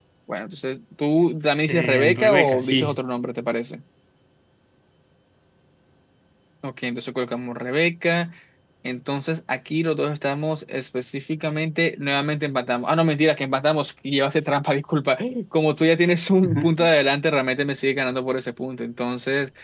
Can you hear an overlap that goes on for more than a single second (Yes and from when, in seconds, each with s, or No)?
Yes, from 1.7 s